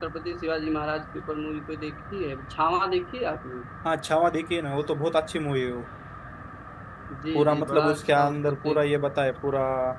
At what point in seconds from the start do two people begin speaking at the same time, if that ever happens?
7.3 s

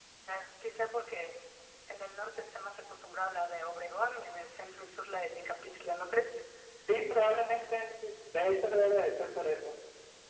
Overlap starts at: none

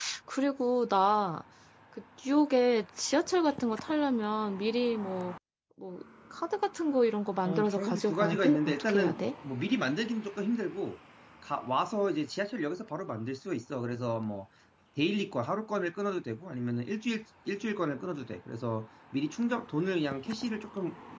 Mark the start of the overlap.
7.5 s

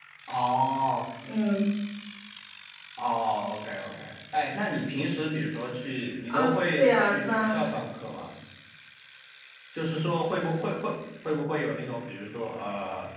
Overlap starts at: 6.3 s

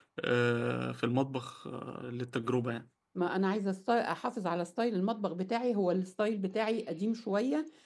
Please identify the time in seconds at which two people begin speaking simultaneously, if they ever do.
none

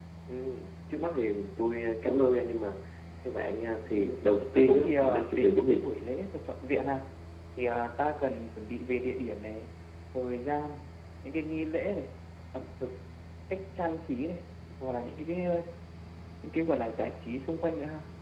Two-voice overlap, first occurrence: 4.6 s

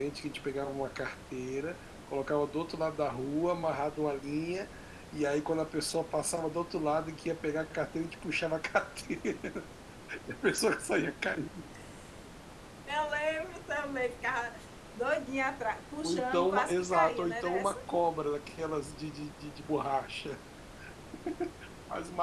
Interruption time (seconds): 16.0 s

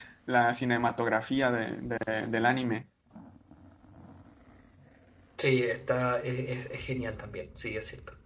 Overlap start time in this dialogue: none

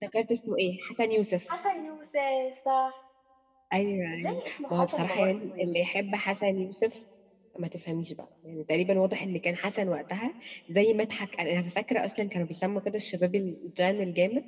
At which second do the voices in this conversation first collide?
4.1 s

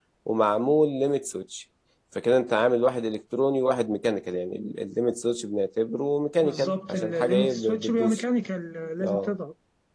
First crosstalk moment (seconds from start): 6.4 s

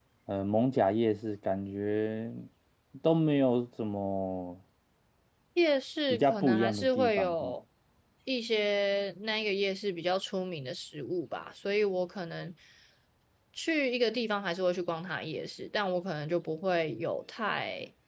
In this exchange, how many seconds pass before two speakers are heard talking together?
6.1 s

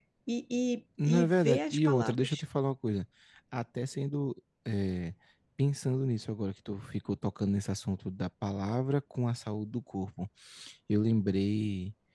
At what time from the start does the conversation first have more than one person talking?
1.1 s

